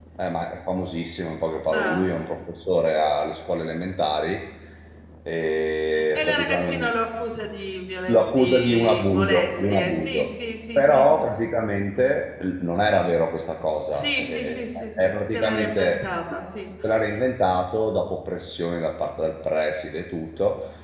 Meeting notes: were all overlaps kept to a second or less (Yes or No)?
No